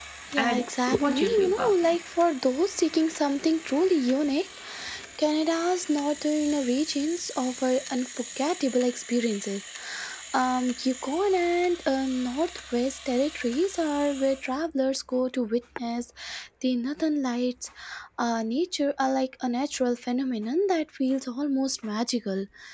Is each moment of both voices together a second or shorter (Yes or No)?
No